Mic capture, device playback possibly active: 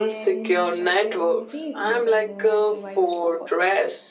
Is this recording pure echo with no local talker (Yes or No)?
No